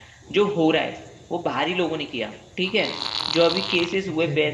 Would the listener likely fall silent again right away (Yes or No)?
Yes